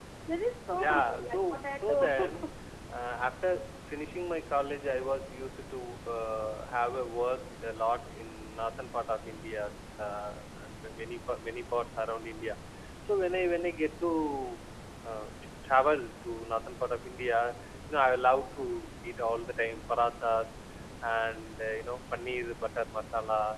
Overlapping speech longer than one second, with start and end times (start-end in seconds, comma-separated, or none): 0.8-2.4